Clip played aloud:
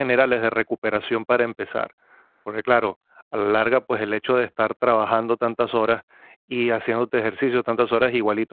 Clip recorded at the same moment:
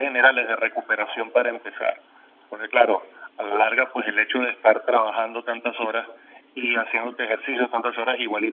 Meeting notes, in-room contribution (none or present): none